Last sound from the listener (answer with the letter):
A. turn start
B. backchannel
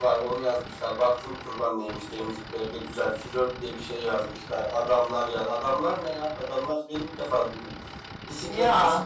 B